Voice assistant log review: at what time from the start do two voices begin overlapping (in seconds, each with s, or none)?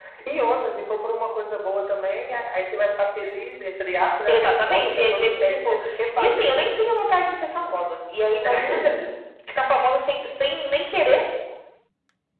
4.3 s